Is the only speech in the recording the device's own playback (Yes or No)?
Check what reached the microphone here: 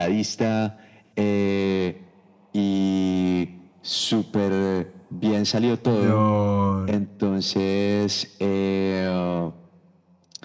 No